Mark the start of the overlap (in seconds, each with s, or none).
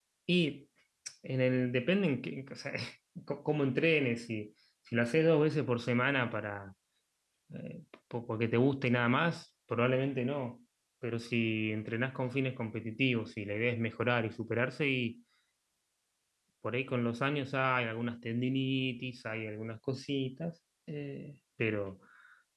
none